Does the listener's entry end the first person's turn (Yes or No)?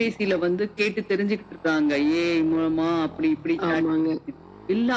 No